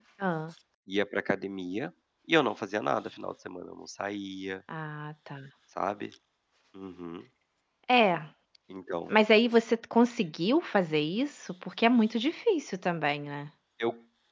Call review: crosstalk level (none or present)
none